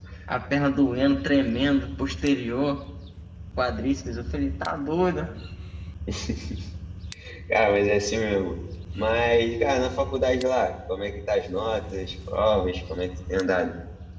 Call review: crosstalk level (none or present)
none